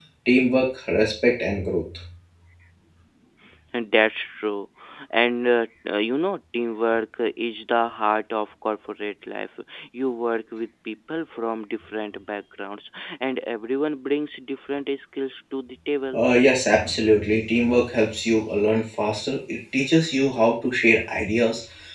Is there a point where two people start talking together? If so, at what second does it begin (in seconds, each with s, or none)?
none